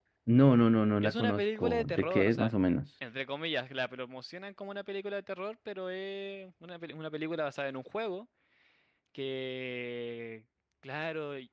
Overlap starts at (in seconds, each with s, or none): 1.0 s